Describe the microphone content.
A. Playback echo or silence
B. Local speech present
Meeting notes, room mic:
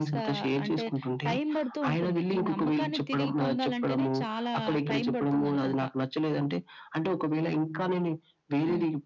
A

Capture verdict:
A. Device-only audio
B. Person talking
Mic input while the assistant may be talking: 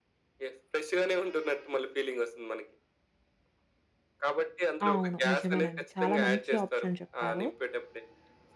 B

